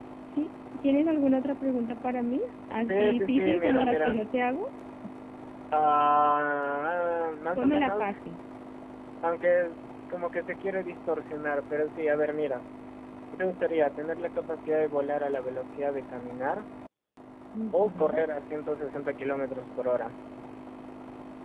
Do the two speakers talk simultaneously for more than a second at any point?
Yes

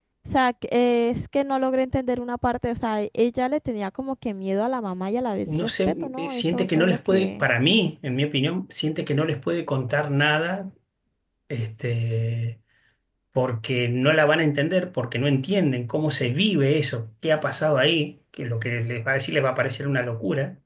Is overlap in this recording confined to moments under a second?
No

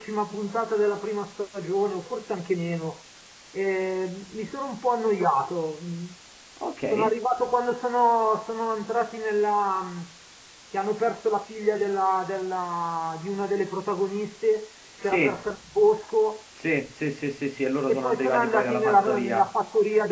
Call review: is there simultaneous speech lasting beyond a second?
Yes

